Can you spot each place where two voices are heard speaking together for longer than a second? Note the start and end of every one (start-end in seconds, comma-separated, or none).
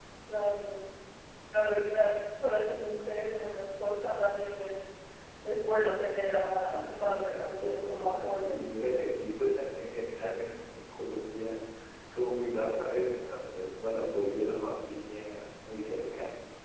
6.7-8.6